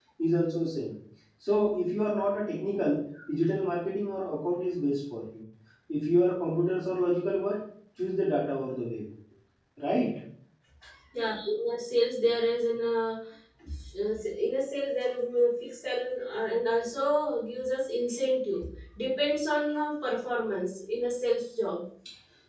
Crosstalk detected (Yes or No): No